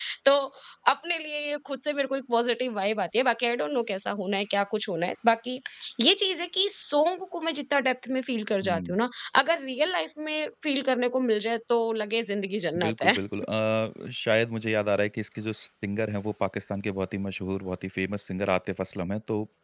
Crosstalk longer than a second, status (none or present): none